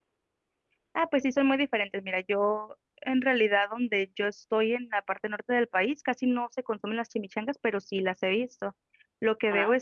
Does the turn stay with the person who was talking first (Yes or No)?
Yes